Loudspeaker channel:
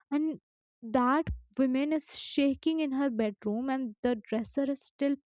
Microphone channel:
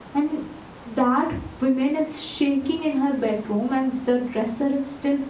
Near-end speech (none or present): none